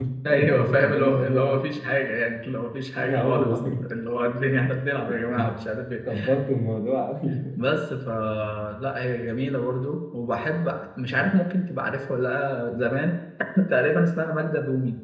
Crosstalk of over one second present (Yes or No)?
Yes